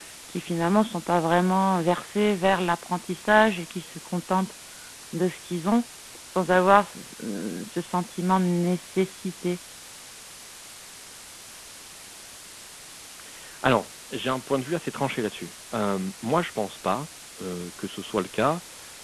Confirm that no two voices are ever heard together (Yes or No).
Yes